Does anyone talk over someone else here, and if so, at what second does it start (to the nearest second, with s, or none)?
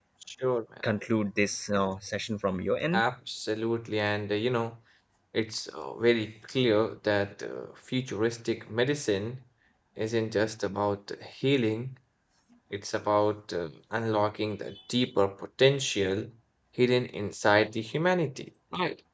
none